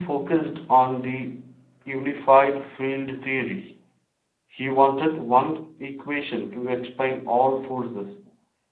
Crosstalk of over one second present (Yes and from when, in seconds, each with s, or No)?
No